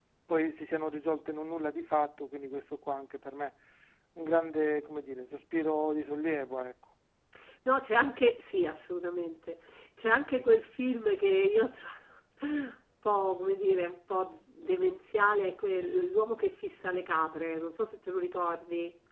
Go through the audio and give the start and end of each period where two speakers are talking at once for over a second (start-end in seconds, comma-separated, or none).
none